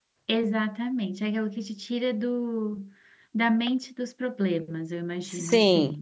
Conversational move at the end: taking over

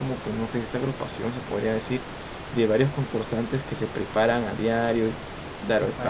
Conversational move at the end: listening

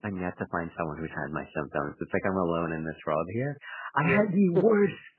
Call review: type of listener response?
listening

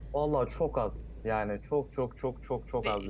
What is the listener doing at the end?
taking over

